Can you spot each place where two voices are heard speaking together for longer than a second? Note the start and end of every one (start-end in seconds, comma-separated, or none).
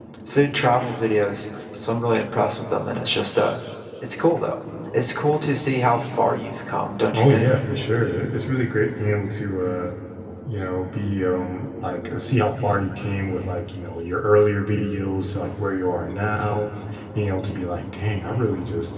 none